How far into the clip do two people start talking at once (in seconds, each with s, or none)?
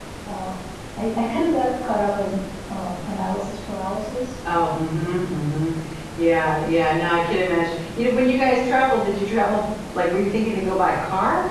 none